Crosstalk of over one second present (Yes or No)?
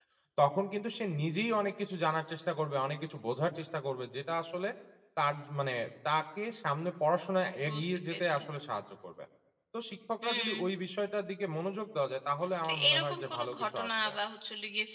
Yes